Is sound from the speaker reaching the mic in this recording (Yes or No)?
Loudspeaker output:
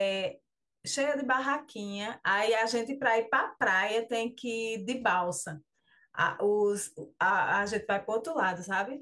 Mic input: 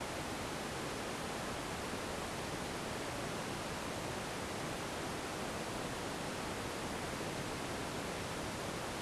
No